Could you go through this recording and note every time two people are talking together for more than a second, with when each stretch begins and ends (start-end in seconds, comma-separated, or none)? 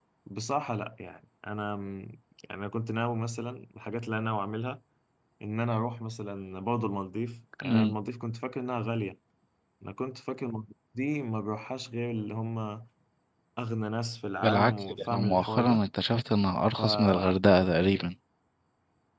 14.4-15.8